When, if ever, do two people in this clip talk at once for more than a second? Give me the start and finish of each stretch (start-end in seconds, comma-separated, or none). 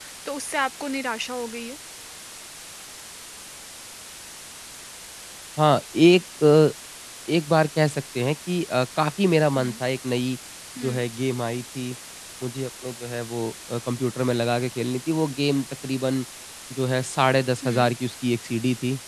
none